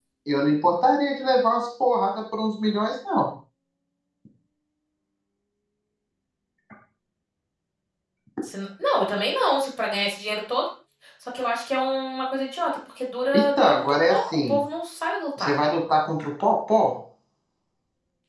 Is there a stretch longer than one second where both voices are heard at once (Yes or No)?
Yes